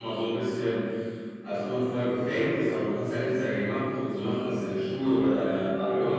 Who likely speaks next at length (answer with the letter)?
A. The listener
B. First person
A